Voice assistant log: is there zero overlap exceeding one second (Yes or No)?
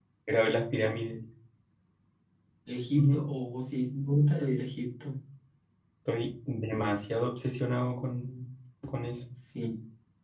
Yes